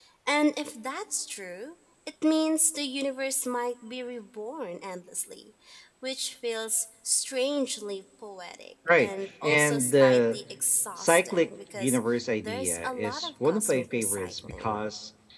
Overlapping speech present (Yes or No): Yes